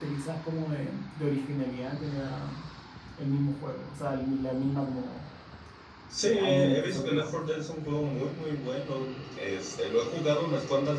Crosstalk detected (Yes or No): Yes